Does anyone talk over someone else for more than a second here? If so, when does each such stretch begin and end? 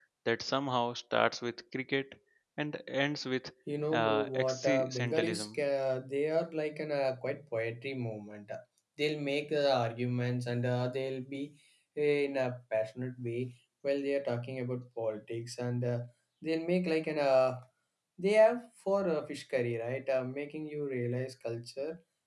3.9-5.6

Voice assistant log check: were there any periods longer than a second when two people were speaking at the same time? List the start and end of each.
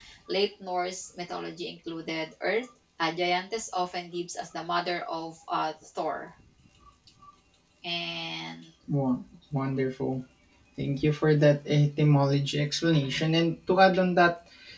none

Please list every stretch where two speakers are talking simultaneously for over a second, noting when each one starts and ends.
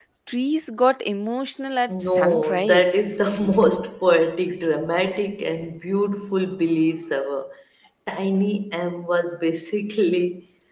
1.9-3.8

